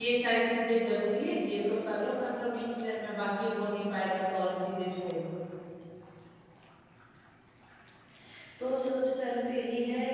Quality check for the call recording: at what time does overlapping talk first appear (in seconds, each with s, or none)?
none